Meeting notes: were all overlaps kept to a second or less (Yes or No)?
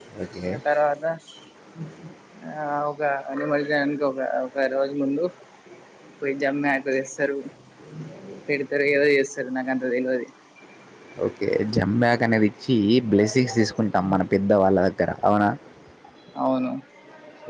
Yes